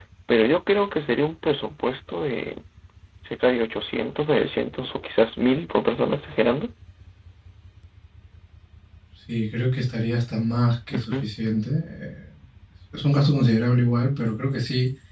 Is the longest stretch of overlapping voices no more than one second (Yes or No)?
Yes